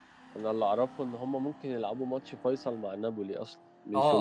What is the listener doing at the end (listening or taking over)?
taking over